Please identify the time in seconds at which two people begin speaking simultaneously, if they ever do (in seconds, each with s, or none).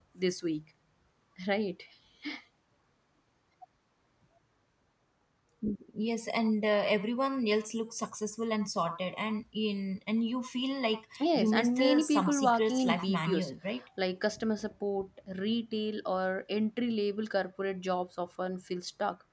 11.1 s